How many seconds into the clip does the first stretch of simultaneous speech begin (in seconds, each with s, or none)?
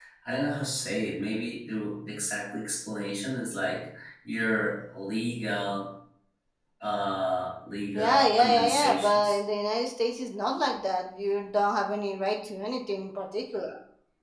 7.9 s